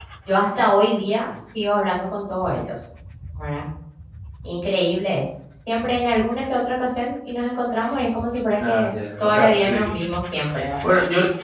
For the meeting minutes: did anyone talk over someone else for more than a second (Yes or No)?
Yes